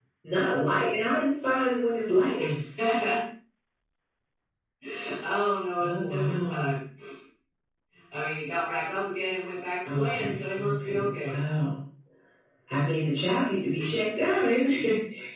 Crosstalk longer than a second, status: present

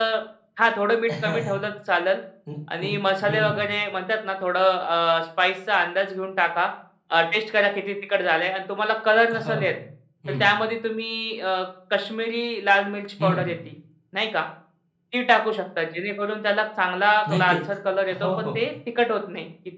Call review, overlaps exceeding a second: none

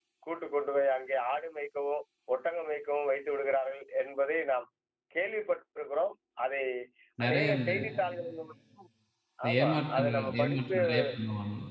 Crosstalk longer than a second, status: present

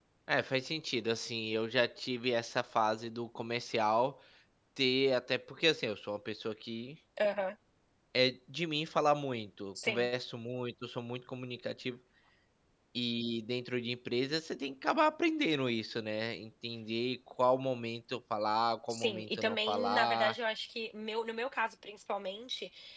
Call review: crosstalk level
present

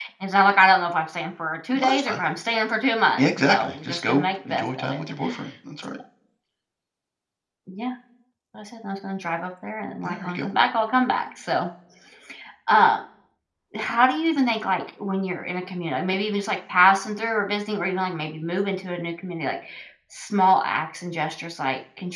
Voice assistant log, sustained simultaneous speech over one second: present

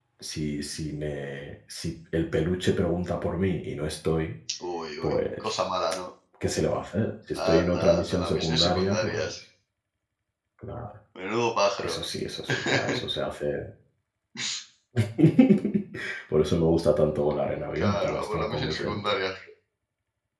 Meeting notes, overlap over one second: present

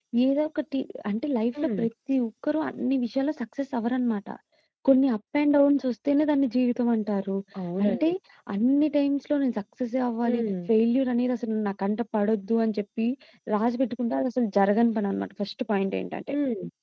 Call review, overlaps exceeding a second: none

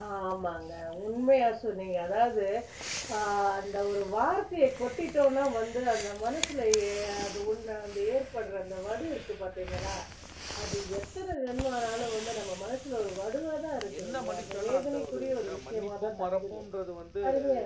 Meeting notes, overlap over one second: present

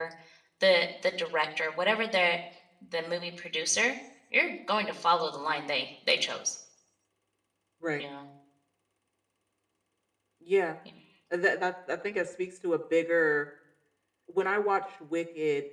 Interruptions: none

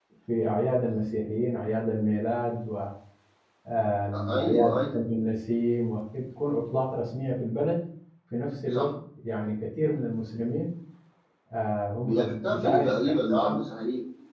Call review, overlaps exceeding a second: present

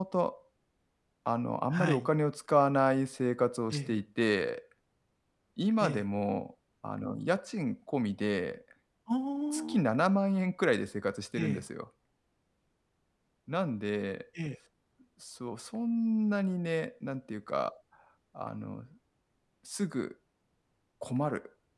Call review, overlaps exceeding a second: none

